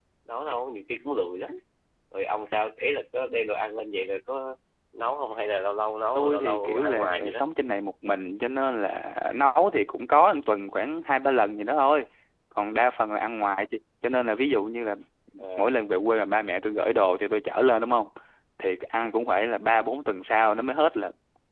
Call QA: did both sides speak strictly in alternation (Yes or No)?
No